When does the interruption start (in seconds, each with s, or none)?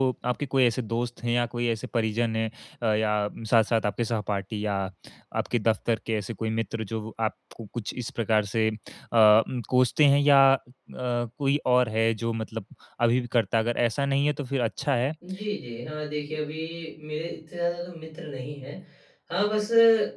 none